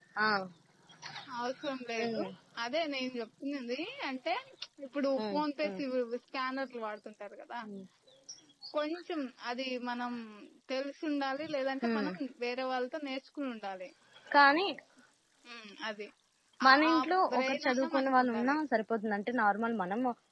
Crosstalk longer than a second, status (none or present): present